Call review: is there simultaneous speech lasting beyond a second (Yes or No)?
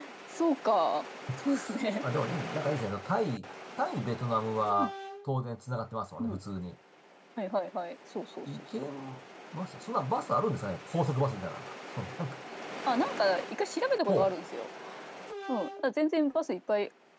No